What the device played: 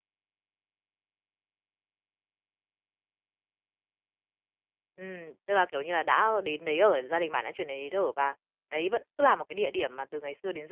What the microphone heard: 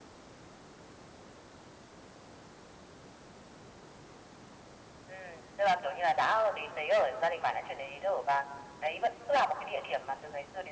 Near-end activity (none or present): none